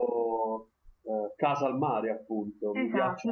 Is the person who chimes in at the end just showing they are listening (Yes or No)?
No